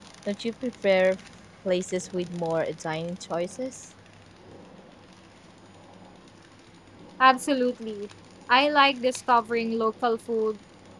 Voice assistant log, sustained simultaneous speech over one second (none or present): none